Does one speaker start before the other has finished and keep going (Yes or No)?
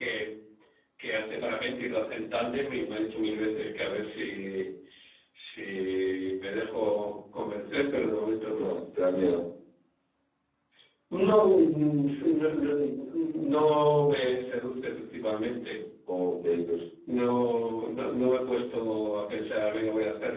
No